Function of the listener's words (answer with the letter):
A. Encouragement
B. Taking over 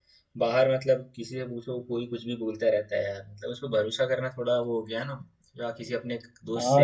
B